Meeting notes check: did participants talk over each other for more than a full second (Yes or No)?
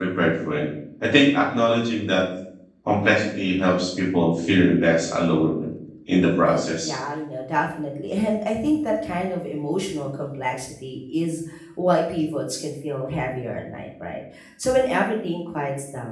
No